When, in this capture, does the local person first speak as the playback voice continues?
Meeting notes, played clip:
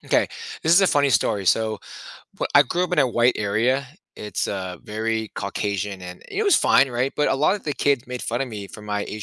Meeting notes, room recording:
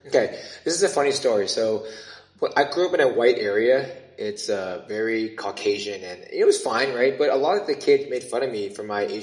none

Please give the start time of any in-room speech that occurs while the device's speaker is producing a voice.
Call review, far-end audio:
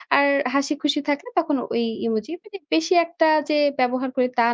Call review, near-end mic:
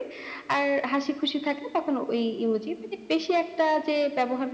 none

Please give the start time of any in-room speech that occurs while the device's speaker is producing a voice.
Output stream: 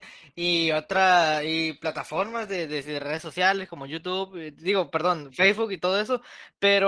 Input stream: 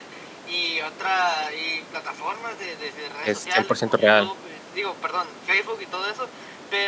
3 s

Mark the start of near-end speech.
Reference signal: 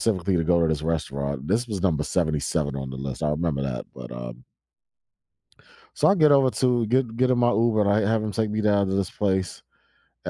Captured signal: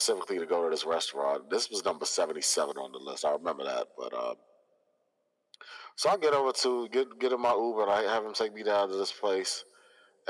none

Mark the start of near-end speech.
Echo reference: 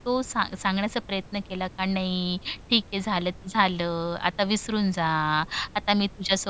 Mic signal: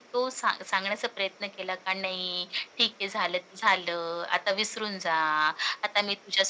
none

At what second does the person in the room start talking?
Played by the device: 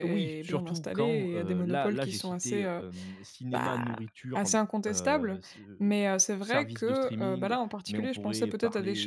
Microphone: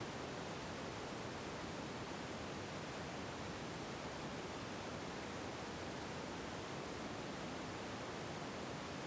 none

